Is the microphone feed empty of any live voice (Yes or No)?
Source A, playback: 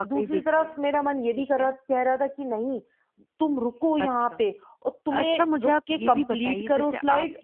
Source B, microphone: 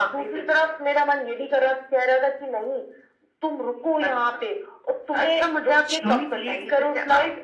No